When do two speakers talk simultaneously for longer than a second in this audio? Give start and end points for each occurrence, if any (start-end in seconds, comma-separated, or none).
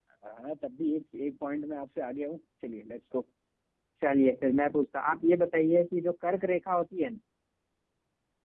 none